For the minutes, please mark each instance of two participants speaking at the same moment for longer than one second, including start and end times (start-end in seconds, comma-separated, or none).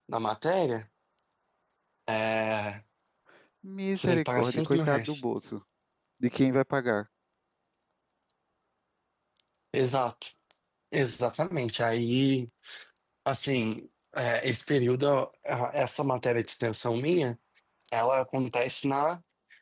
4.0-5.2